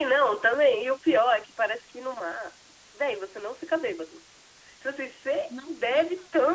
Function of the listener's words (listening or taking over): listening